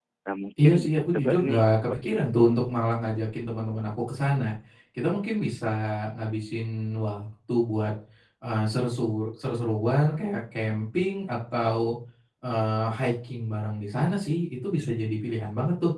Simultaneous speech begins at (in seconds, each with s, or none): 0.6 s